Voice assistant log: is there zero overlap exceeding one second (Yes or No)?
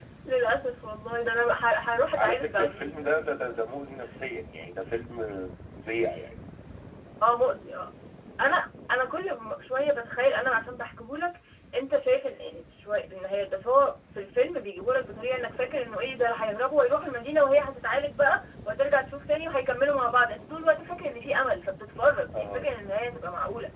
No